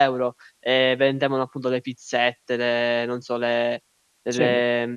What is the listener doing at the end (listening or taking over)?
listening